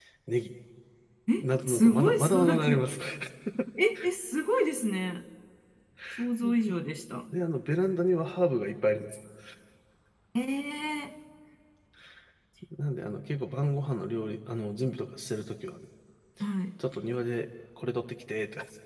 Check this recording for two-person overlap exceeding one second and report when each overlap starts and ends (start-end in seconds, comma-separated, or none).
1.4-2.7